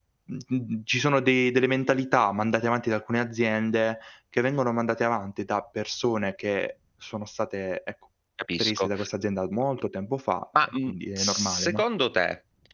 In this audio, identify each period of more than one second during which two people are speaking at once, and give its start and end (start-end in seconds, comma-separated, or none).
10.6-11.8